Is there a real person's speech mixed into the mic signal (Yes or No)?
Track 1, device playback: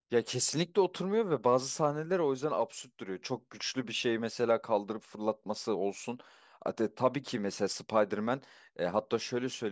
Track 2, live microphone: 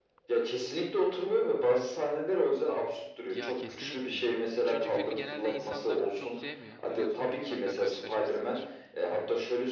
Yes